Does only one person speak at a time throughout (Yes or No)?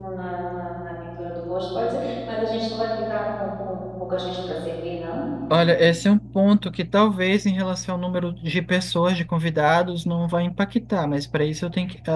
Yes